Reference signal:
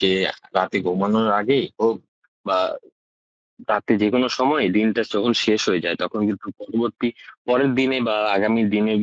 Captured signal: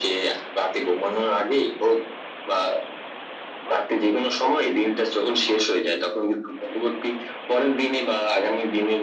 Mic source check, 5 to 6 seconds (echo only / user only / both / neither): echo only